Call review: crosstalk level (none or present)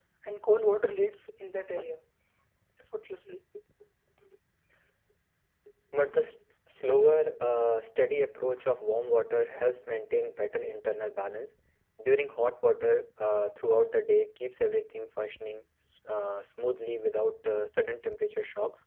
none